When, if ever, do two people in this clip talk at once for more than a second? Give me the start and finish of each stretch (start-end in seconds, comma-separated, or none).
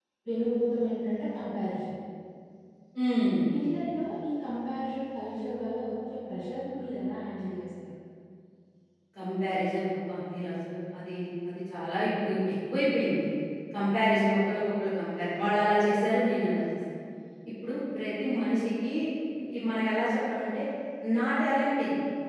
none